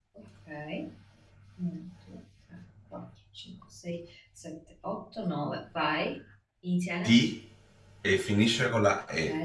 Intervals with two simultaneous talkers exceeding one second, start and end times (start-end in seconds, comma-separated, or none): none